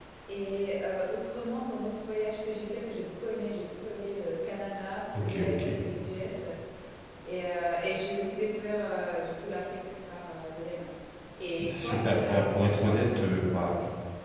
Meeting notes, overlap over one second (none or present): present